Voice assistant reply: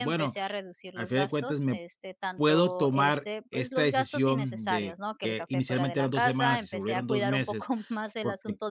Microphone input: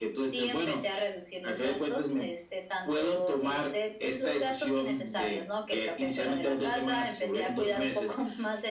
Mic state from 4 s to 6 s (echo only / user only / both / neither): echo only